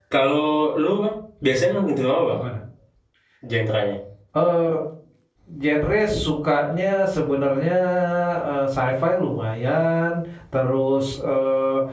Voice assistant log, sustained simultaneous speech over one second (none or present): none